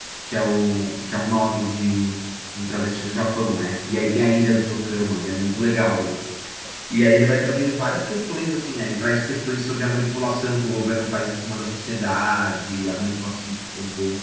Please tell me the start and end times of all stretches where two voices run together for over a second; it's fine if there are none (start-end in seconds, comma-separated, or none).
none